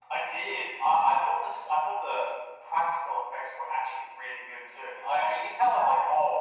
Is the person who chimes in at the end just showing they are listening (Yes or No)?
Yes